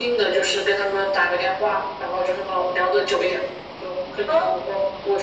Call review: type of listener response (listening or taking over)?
listening